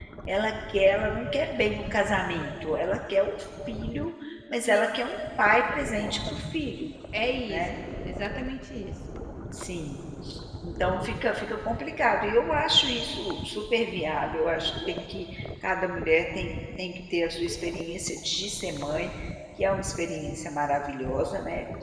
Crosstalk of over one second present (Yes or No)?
No